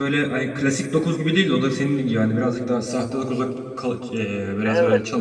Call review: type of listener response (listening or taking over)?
taking over